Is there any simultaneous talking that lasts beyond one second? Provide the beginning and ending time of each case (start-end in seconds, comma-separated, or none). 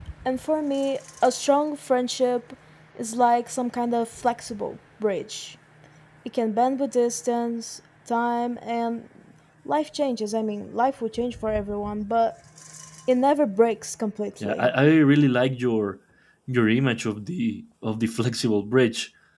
none